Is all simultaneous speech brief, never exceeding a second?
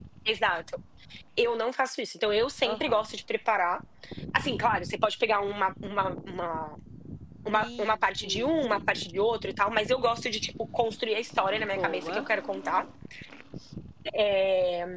No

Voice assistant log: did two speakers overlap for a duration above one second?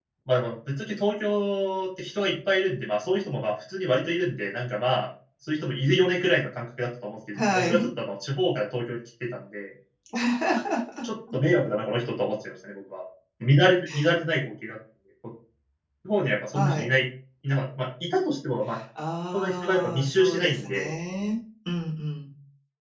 Yes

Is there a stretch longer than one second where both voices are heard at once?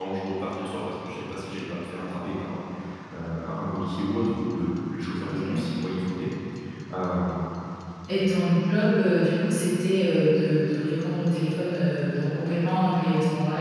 No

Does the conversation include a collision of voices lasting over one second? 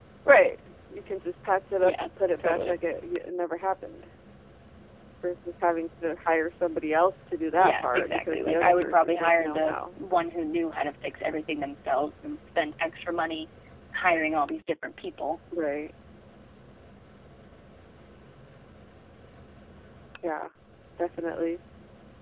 Yes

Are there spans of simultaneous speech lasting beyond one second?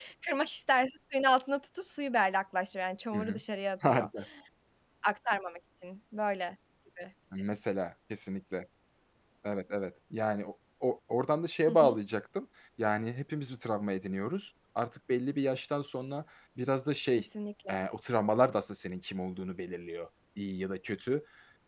No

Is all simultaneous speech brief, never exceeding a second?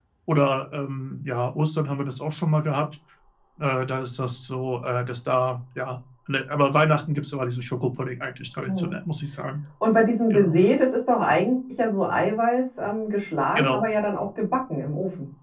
Yes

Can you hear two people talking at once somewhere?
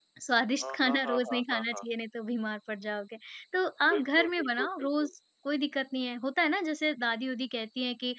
Yes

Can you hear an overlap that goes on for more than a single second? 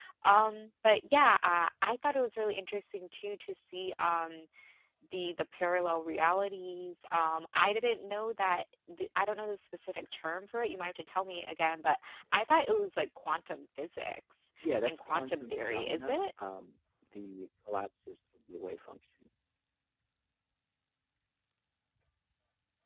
Yes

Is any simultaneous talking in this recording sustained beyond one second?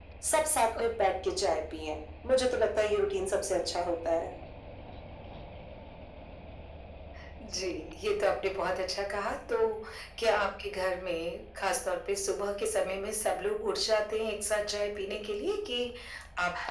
No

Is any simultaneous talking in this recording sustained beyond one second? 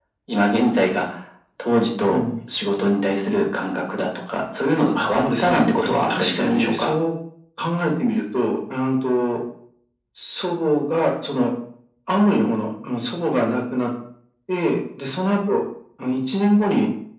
Yes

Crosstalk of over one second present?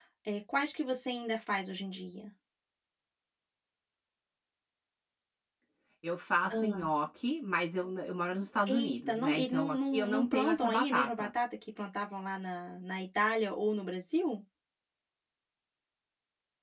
Yes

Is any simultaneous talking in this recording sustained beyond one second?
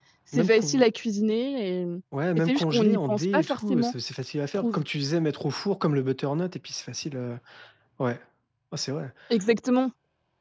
Yes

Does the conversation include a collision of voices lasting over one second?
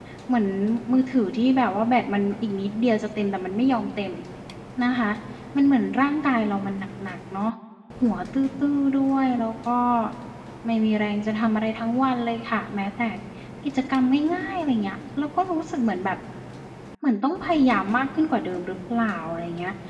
No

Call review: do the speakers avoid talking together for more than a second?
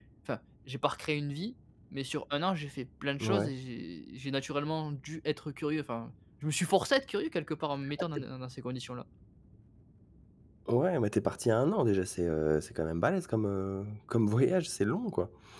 Yes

